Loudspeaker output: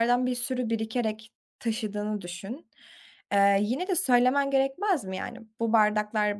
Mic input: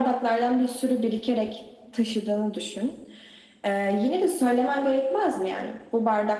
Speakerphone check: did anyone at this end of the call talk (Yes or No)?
No